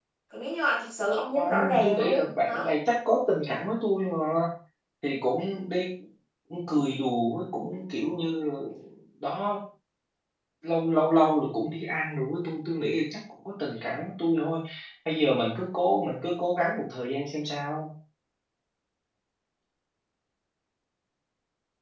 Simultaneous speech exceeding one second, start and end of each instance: 1.4-2.6

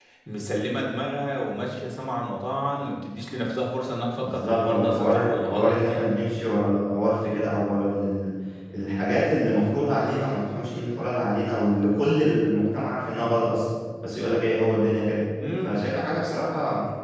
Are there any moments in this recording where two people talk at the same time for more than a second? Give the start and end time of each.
4.1-5.8

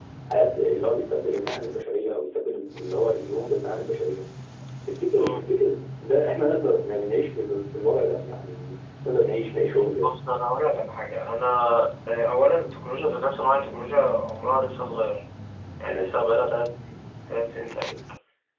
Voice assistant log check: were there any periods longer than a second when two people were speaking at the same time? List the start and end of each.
none

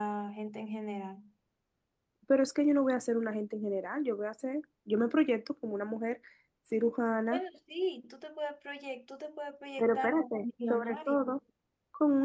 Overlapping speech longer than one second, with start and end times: 9.8-11.2

